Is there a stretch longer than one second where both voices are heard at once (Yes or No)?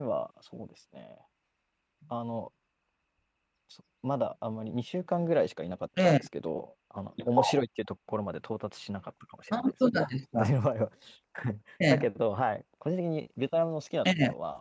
No